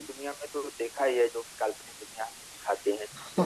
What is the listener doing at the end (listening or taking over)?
taking over